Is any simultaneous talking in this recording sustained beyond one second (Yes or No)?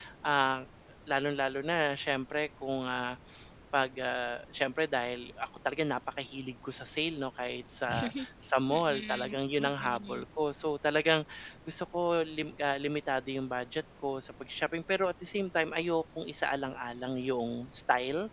Yes